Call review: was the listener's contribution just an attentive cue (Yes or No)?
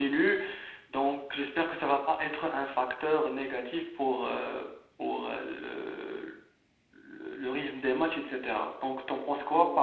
No